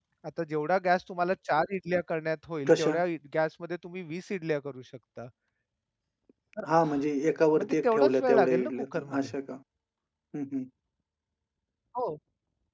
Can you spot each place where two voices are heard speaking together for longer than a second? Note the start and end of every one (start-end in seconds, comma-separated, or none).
7.6-9.3